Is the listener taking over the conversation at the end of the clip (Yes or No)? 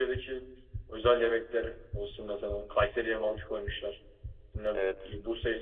No